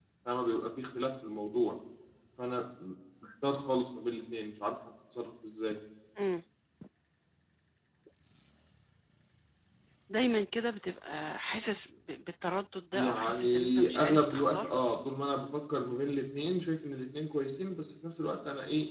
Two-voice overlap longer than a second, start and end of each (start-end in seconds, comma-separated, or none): 12.9-14.7